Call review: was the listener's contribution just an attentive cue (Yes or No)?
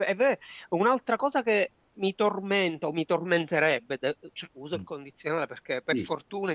Yes